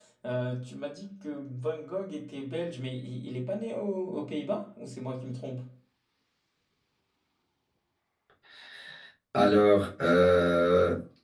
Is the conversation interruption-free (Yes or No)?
Yes